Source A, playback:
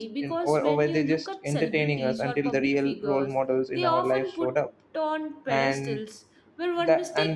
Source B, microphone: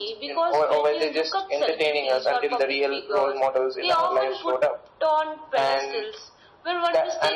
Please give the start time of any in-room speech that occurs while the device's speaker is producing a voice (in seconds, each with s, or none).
none